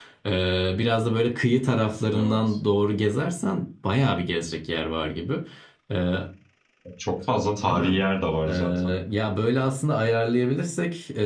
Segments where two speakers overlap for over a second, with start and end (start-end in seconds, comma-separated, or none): none